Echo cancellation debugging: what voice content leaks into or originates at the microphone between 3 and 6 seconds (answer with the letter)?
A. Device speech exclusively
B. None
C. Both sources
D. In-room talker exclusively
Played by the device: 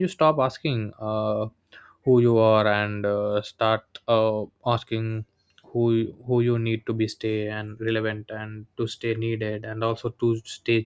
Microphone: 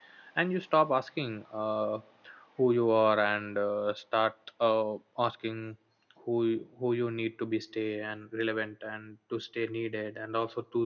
A